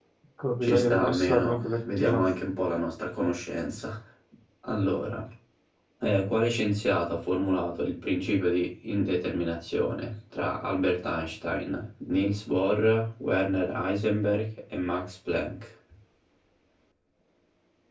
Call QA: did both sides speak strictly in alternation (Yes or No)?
No